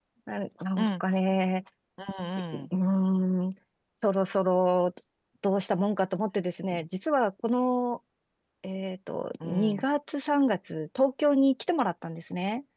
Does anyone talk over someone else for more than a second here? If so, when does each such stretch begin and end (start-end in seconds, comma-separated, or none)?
none